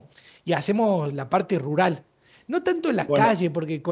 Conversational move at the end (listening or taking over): listening